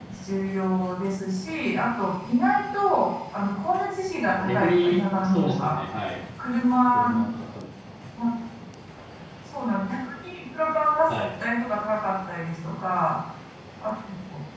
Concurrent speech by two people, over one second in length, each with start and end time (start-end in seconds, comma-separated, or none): 4.2-5.8